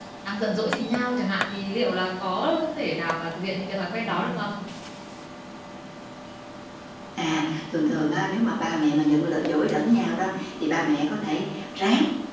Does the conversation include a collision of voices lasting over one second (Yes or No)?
No